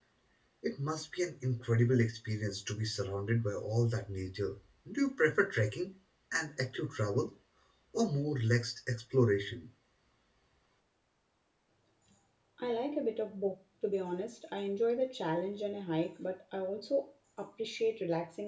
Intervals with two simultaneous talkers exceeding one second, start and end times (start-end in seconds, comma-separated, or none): none